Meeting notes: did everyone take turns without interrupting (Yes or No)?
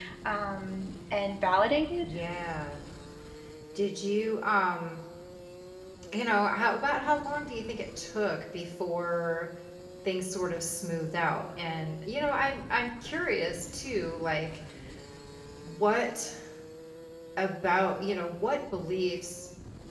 Yes